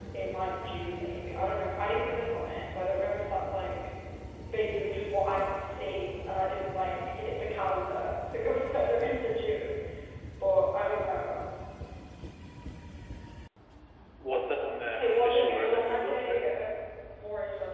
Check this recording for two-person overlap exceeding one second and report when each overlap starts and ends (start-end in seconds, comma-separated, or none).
15.0-16.4